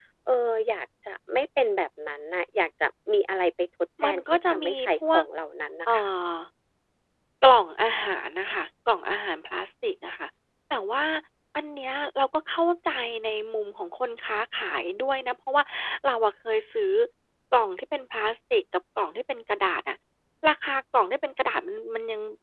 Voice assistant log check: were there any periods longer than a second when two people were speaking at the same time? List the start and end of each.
4.0-5.2

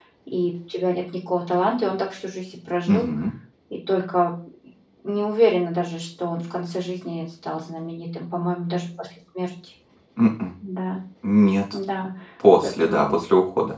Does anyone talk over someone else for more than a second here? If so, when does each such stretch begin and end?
none

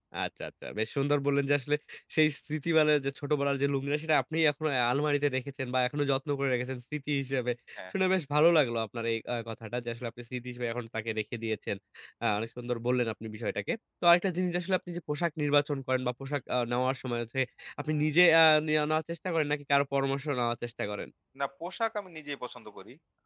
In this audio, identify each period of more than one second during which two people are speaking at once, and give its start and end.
none

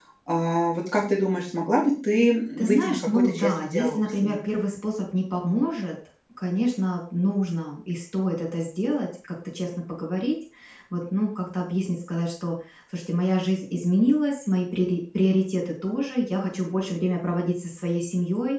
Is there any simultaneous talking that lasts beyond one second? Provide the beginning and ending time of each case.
2.6-4.4

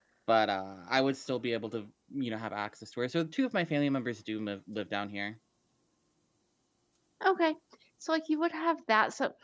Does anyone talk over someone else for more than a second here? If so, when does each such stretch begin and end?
none

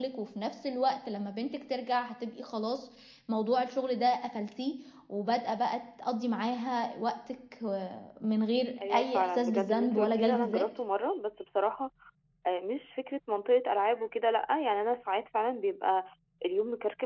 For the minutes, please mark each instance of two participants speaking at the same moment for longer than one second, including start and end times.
8.9-10.7

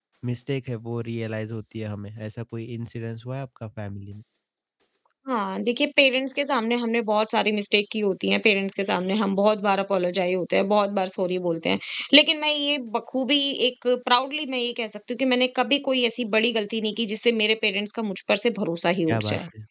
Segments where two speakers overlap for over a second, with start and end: none

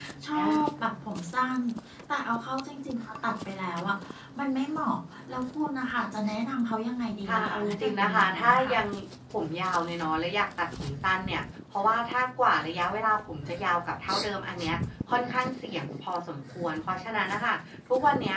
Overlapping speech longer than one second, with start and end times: 7.3-8.8

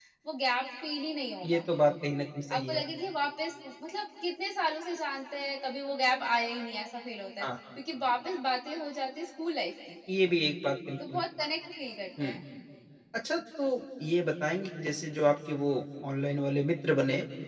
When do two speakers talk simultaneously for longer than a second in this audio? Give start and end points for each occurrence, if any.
none

